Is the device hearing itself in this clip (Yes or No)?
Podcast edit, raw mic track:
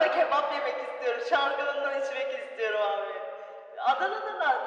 Yes